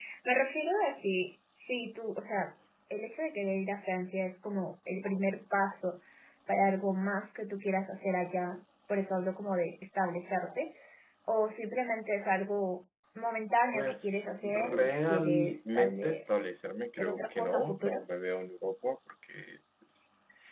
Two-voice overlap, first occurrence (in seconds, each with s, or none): 13.7 s